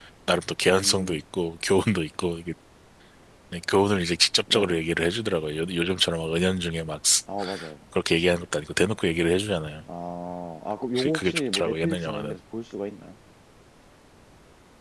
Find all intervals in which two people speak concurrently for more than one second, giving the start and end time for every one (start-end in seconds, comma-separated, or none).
10.9-12.4